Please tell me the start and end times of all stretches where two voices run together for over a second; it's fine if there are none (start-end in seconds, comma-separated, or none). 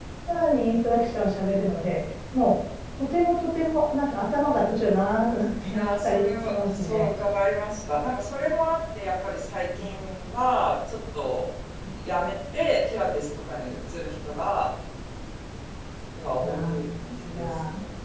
5.7-7.1